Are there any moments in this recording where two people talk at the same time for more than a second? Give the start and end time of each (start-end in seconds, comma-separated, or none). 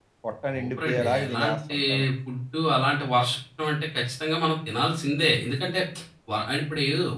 0.5-1.8